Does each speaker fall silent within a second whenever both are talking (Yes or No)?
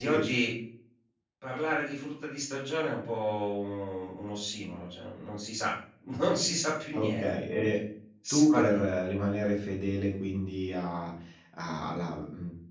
Yes